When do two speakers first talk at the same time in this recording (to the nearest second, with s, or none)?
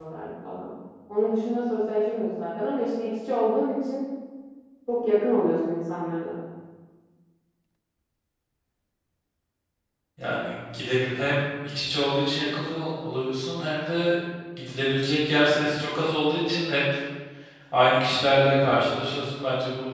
none